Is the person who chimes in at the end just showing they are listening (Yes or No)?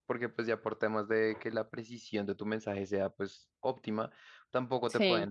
Yes